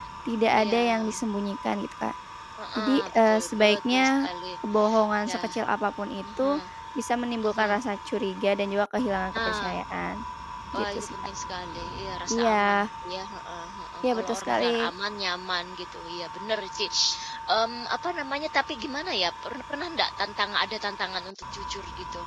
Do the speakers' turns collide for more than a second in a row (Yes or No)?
Yes